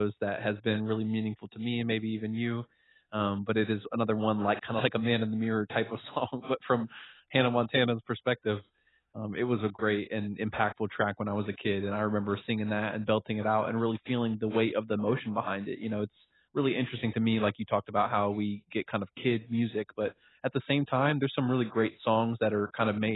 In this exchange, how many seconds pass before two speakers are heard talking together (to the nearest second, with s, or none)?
none